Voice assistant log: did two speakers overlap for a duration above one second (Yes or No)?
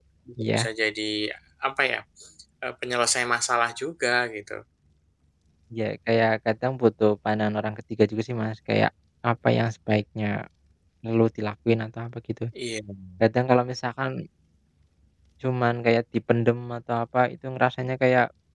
No